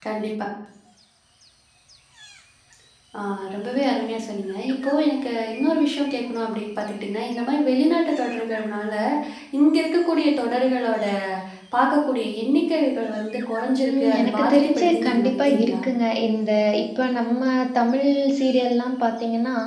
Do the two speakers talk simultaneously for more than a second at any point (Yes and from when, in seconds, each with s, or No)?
Yes, from 13.8 s